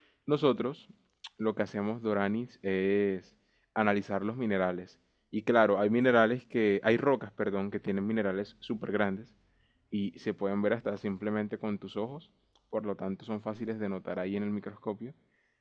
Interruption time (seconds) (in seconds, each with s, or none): none